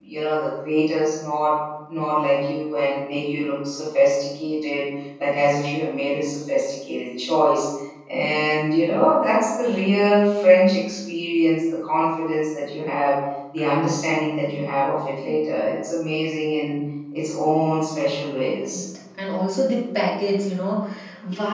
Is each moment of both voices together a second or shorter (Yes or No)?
Yes